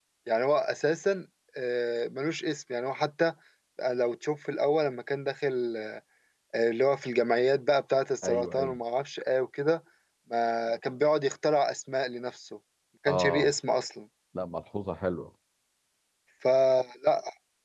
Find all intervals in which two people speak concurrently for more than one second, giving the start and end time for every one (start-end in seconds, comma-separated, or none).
none